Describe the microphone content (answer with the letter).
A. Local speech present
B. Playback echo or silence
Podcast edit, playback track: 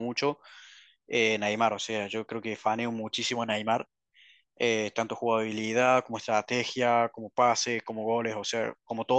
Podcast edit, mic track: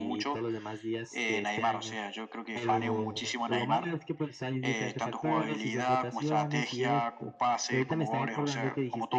A